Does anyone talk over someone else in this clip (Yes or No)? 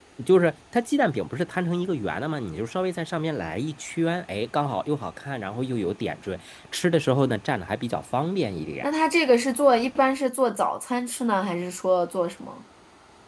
No